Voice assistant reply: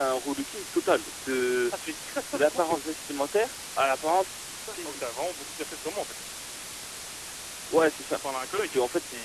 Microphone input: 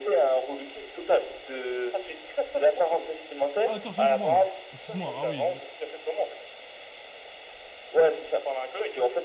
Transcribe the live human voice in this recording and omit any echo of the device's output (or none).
Ah d'accord, je viens de comprendre. Excuse-moi. Ah oui. Ouais,